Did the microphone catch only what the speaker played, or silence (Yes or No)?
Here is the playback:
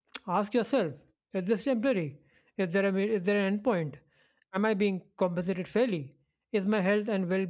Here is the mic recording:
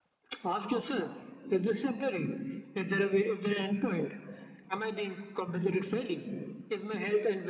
Yes